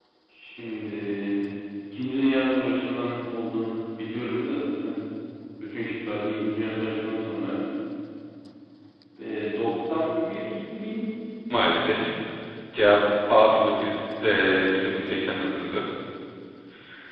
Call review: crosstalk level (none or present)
none